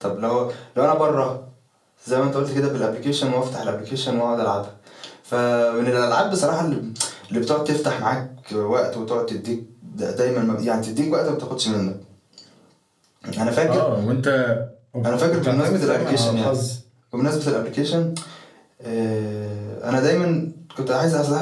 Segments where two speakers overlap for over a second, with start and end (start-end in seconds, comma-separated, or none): 15.0-16.5